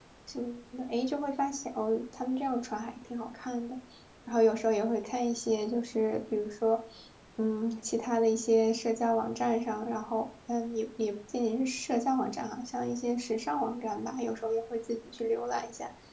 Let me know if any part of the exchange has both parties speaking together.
No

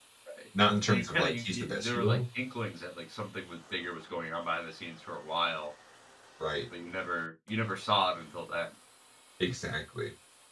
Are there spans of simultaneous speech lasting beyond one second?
Yes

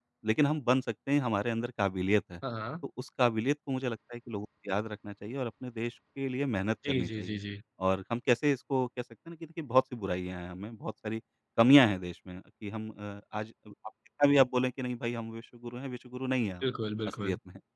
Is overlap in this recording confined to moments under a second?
Yes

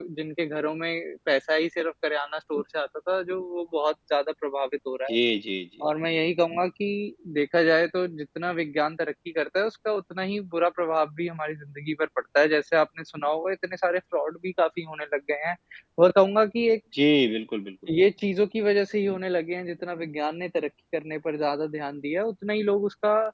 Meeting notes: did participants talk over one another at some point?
No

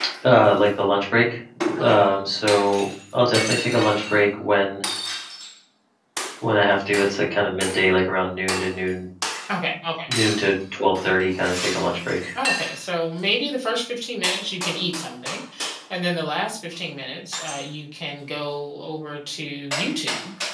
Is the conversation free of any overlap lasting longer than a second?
Yes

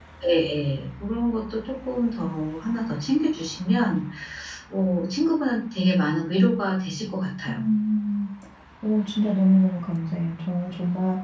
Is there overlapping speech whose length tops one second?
No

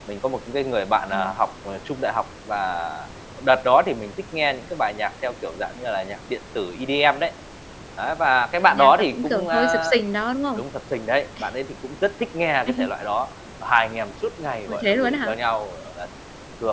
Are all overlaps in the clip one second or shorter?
No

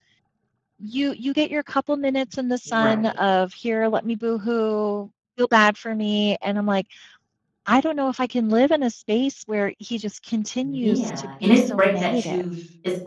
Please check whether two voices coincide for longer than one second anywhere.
Yes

